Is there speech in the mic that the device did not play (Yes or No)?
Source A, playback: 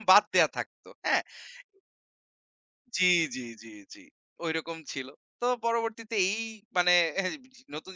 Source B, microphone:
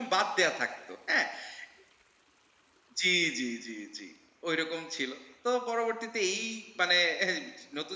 No